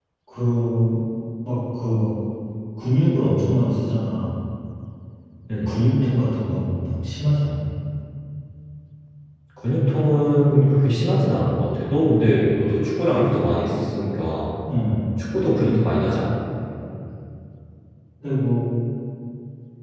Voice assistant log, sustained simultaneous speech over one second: none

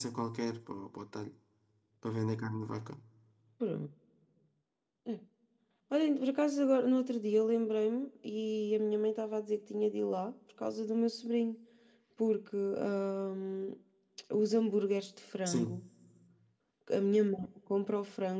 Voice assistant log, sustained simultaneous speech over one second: none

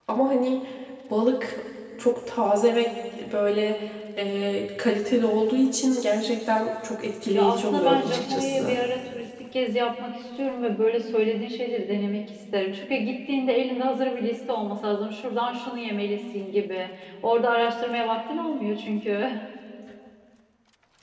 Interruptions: present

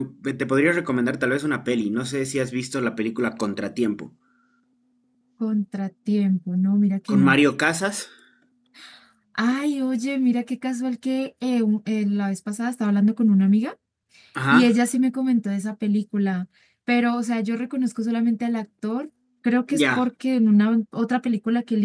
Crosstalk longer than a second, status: none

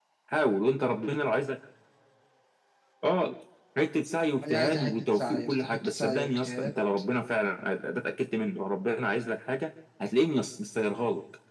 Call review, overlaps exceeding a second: present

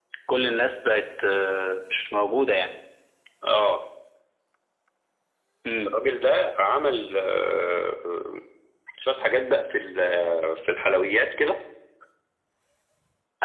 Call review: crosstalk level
none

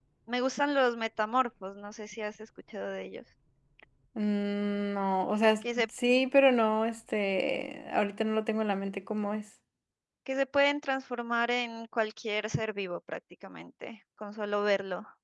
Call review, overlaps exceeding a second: none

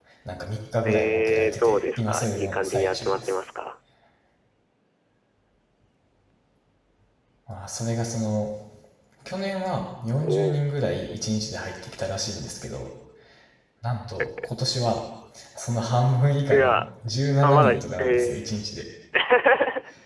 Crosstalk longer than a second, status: present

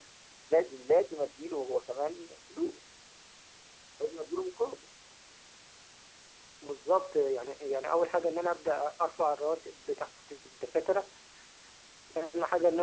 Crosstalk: none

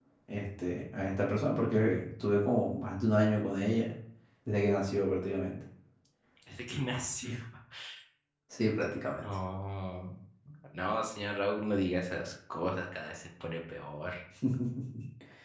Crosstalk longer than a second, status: none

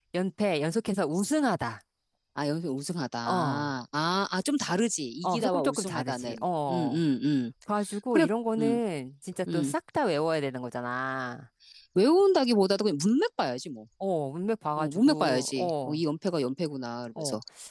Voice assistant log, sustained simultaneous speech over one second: present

